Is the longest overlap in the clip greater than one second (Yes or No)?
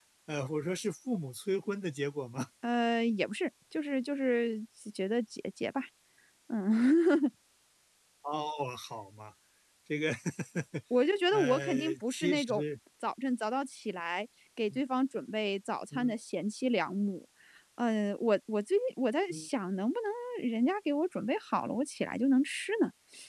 Yes